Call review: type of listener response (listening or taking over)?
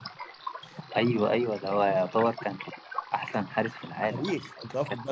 taking over